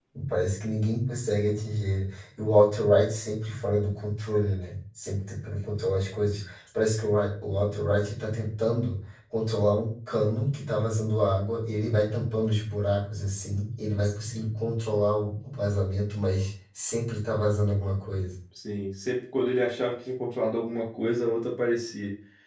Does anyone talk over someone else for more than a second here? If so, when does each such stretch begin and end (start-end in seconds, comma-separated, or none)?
none